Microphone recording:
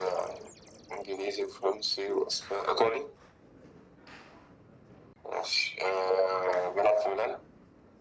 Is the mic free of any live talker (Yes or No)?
Yes